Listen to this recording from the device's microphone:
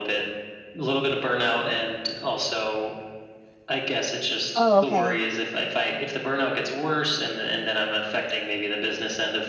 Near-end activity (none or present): present